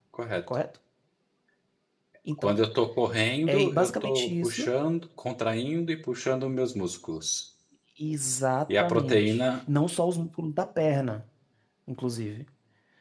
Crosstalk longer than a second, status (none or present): present